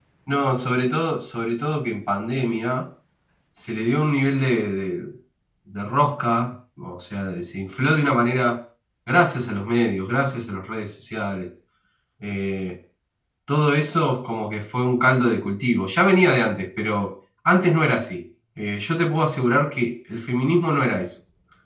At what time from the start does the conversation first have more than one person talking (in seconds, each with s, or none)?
none